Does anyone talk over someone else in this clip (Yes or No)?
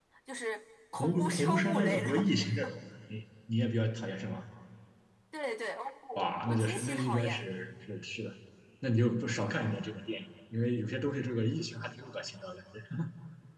Yes